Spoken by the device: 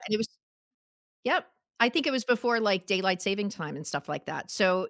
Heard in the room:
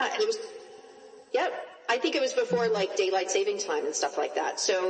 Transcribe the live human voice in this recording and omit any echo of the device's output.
Mhm.

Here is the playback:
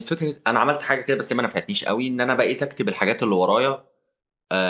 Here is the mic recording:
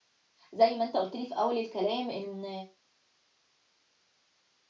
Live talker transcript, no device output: زي ما أنت قُلت لي في أول الكلام إن

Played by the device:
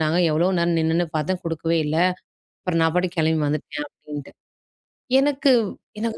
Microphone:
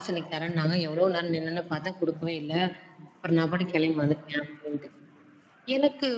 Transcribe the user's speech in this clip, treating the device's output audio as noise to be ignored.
none

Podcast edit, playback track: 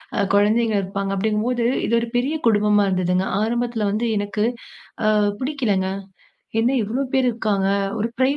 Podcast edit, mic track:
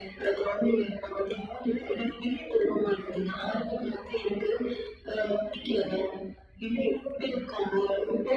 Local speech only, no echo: none

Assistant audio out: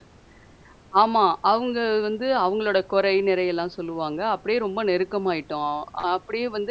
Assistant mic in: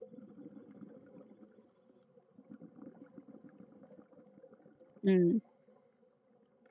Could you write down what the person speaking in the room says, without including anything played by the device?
ம்.

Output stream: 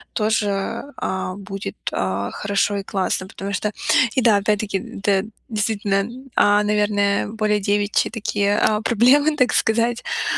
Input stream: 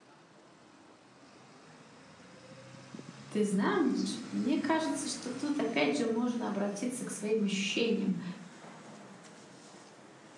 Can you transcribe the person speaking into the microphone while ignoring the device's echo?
Ты знаешь, мне кажется, что тут опять же можно обратиться к своим ощущениям.

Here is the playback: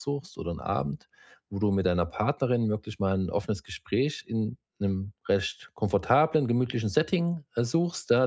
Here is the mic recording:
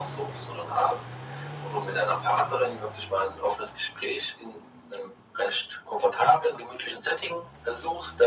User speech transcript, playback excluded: none

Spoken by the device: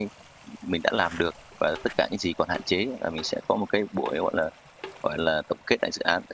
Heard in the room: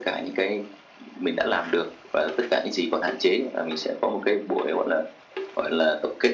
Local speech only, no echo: none

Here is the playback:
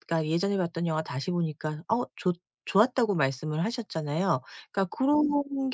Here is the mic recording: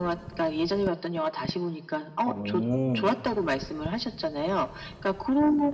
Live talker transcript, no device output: 어.

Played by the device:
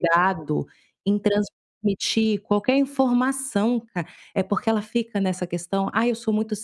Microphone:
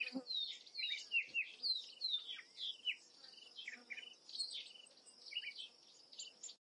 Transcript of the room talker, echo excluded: none

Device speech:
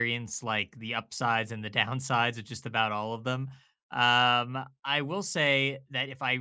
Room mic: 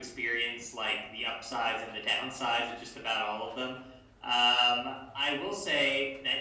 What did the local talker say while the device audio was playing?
none

